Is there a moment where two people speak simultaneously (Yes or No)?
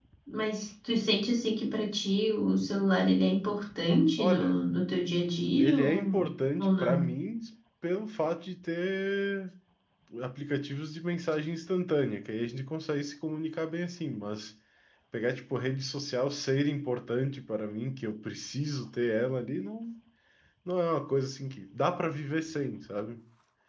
Yes